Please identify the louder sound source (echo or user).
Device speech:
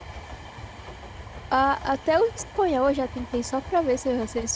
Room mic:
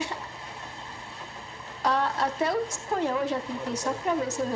echo